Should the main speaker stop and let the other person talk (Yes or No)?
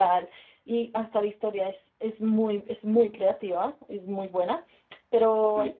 No